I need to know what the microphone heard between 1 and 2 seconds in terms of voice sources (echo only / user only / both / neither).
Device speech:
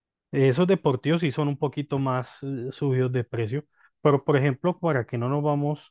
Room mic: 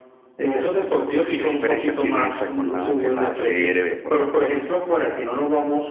both